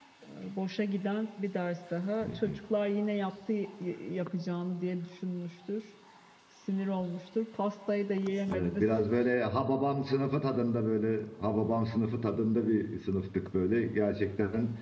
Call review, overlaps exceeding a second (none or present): none